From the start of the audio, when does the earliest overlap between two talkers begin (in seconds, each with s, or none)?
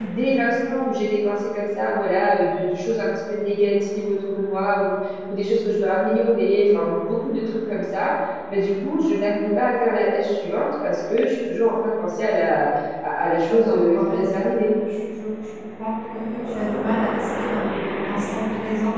13.5 s